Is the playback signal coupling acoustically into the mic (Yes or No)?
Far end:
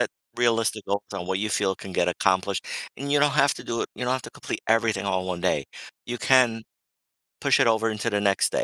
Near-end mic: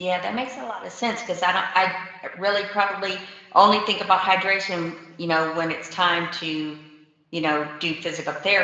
No